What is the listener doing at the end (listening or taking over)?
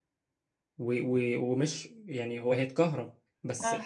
listening